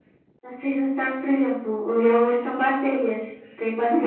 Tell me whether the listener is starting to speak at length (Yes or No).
Yes